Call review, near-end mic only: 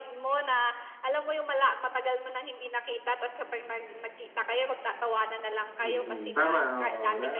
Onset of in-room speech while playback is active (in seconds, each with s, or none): 5.8 s